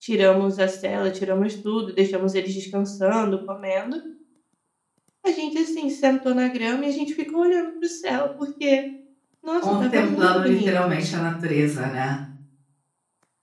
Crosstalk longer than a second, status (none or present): present